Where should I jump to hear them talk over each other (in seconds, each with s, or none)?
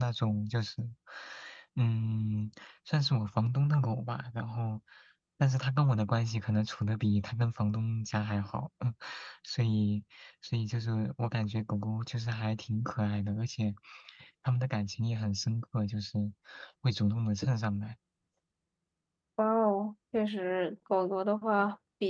none